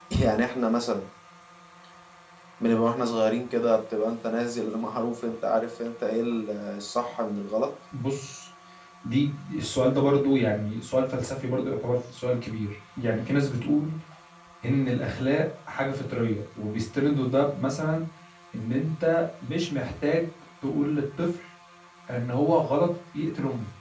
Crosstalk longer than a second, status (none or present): none